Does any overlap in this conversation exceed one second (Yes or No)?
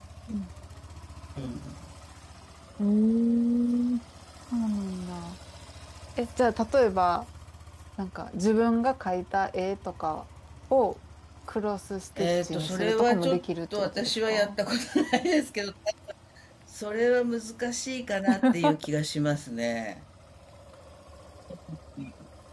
Yes